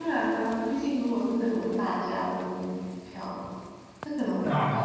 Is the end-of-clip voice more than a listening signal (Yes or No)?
No